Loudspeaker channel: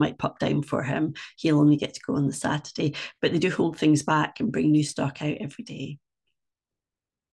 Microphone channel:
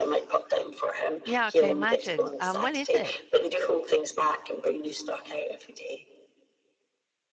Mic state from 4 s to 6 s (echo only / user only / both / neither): echo only